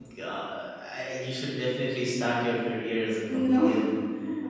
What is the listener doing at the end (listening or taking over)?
listening